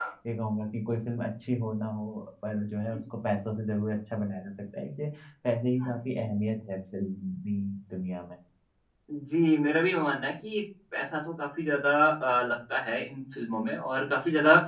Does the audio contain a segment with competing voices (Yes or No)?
No